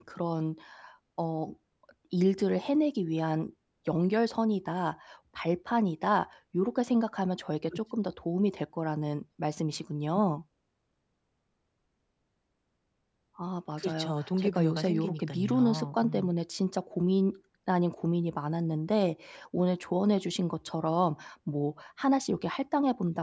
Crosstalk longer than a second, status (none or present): present